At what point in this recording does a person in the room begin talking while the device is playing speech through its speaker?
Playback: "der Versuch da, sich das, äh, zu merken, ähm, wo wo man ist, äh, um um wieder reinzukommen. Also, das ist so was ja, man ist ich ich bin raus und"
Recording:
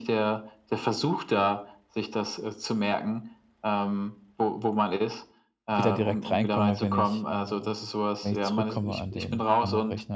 5.7 s

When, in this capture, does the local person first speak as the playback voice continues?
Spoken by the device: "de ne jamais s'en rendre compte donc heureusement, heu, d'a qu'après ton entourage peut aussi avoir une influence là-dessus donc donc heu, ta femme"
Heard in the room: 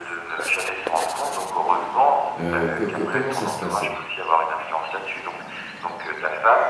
2.4 s

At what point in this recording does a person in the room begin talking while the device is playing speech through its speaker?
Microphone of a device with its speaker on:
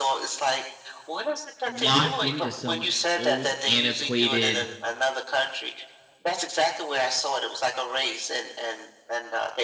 1.7 s

